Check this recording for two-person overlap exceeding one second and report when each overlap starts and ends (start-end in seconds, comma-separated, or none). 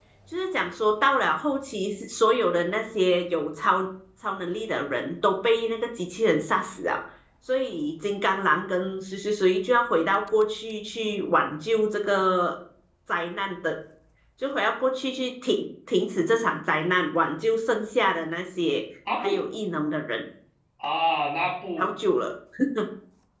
none